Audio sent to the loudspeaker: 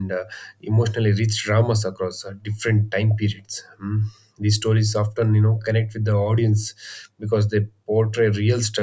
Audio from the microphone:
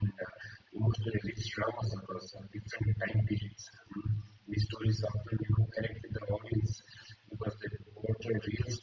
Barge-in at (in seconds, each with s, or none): none